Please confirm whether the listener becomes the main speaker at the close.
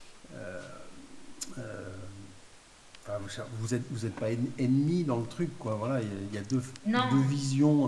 No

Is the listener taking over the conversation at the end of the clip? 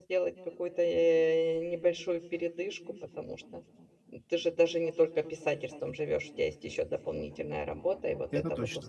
No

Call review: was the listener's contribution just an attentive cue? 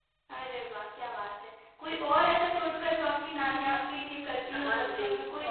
No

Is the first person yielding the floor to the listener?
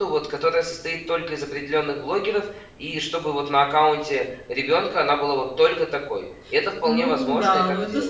Yes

